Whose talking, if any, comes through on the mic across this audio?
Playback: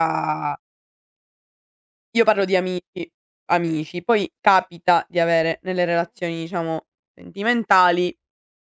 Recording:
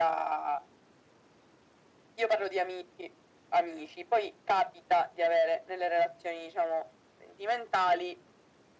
echo only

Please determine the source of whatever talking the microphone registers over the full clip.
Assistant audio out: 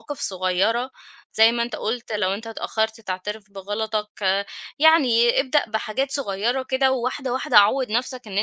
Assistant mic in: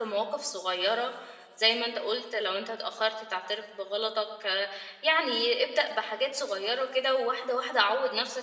echo only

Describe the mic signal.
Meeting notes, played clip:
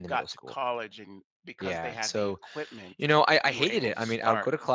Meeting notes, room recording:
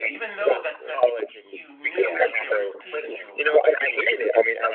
both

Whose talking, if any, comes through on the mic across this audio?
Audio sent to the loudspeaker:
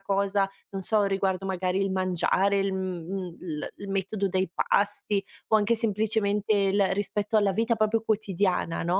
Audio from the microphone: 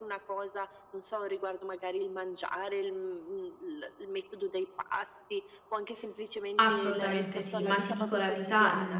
both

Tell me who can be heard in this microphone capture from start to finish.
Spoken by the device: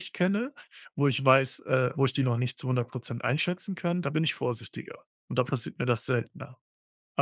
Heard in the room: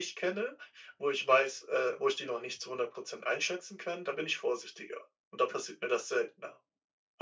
echo only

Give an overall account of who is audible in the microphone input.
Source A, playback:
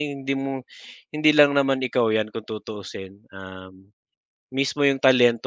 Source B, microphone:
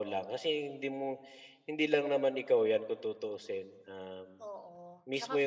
both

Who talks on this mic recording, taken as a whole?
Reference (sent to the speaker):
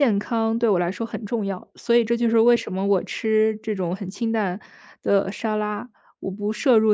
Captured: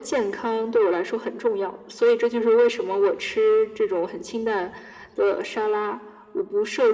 echo only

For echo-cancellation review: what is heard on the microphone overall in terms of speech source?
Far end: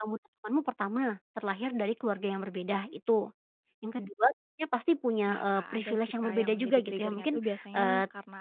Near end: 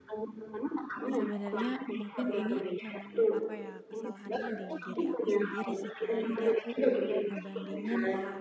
both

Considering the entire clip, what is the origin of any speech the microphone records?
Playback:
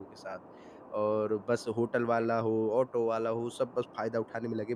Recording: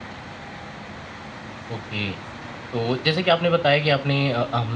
user only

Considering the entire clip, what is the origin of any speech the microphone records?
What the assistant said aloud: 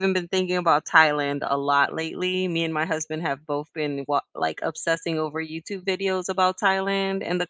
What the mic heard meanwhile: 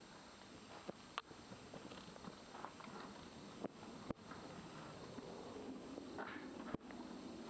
neither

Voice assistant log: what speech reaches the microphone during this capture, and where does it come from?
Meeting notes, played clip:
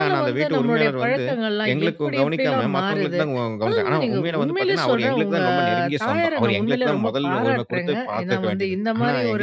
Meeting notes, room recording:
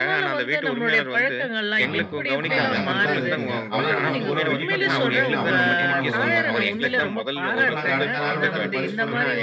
both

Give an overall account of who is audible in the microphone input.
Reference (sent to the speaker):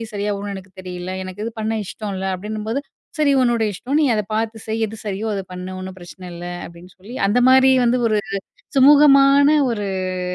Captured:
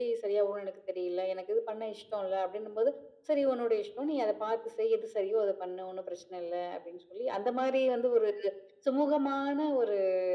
echo only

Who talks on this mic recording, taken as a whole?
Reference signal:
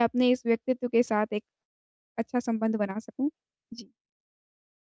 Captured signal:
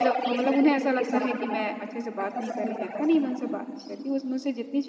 both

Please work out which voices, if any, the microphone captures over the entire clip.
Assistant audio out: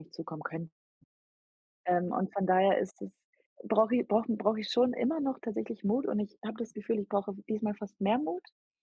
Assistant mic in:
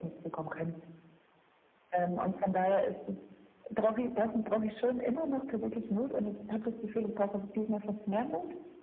echo only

